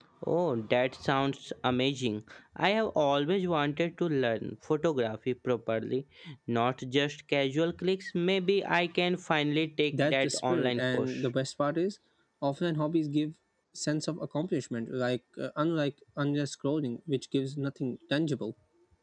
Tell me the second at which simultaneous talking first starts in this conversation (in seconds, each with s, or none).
9.9 s